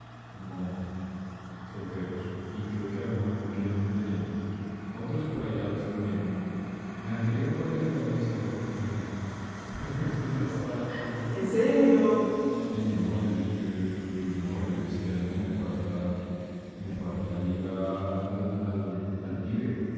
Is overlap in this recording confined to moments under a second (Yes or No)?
Yes